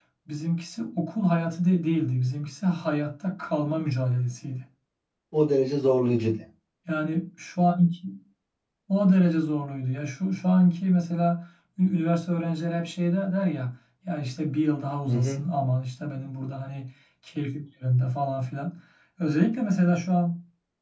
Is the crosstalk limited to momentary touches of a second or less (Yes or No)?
Yes